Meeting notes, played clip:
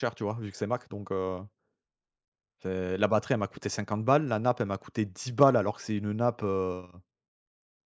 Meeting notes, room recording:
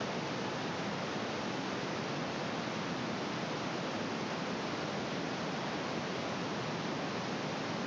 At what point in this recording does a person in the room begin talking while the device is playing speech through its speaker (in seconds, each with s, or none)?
none